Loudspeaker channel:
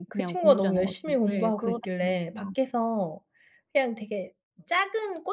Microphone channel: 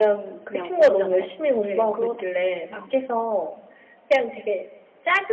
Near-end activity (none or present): none